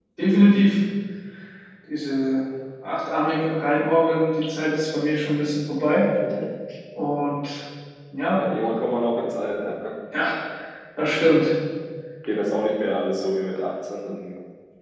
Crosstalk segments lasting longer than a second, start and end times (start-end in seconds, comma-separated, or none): none